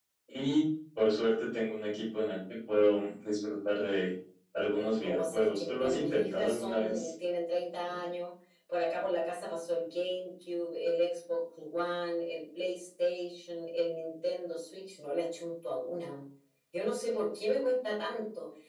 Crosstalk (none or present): present